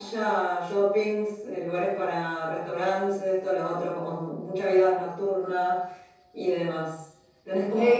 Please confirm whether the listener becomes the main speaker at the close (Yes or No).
No